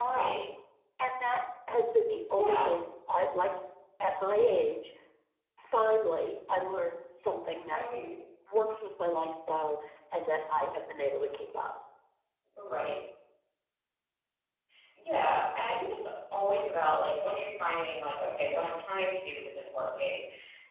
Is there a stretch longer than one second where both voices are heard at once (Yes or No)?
No